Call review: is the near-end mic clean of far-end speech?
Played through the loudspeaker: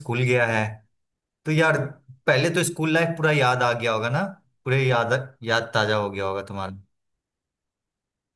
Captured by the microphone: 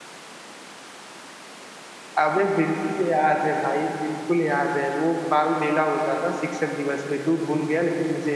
Yes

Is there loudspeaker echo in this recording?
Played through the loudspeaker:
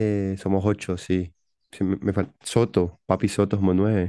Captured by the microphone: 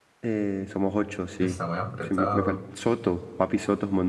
Yes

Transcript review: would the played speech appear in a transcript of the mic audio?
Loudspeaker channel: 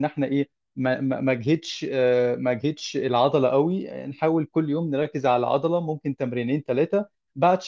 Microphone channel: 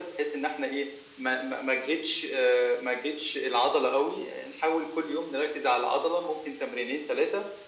Yes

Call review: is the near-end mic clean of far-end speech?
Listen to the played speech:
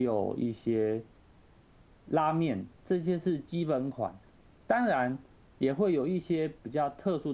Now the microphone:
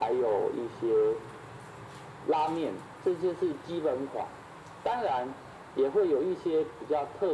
No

